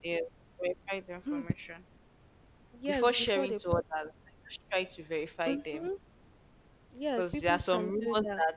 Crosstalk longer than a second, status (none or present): present